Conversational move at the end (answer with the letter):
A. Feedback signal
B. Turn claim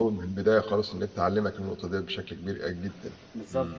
B